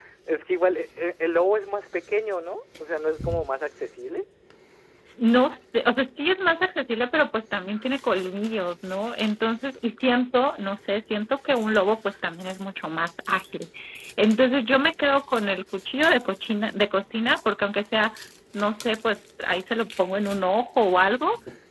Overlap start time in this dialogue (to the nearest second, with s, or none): none